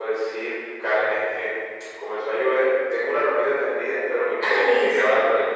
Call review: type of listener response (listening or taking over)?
listening